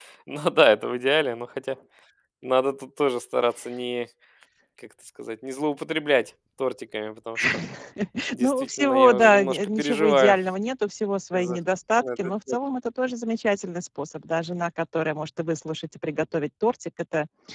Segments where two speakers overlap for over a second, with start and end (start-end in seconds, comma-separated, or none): 8.4-10.4